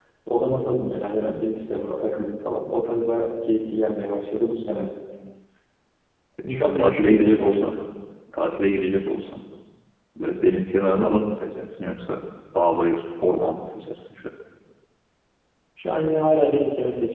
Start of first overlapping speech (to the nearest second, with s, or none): 6 s